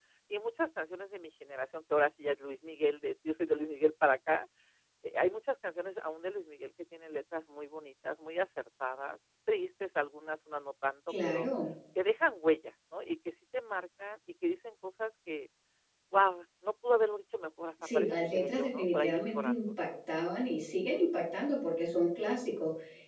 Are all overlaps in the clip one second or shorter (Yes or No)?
No